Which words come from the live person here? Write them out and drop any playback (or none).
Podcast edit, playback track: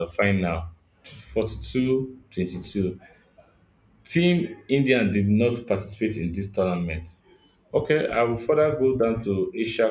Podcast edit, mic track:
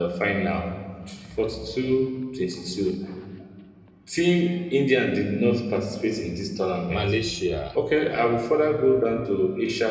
Malaysia,